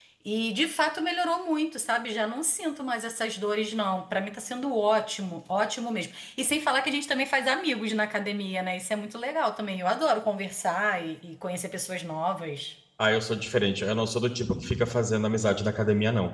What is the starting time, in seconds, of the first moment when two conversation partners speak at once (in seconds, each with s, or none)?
none